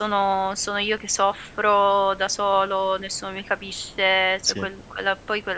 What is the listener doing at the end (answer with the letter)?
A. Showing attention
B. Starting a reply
A